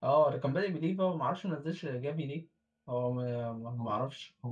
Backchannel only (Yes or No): No